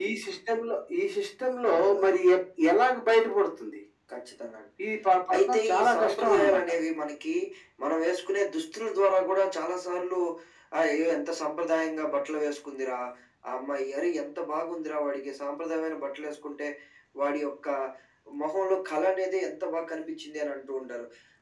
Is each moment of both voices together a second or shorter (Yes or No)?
No